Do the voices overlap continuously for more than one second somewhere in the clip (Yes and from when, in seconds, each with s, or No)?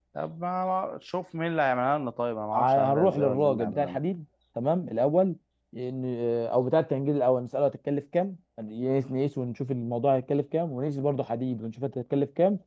Yes, from 2.5 s